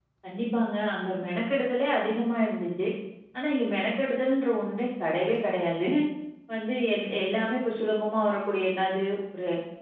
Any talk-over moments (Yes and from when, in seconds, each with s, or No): No